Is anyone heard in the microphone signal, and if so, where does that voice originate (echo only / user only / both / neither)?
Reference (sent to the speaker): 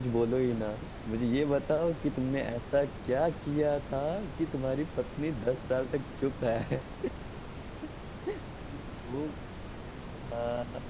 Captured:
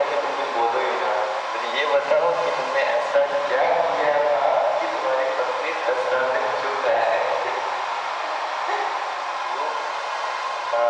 echo only